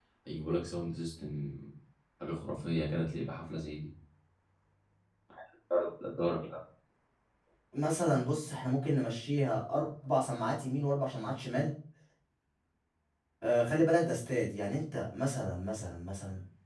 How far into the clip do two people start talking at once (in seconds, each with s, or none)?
none